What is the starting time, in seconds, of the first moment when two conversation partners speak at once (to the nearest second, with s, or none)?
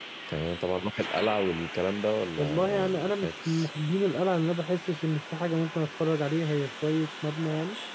2 s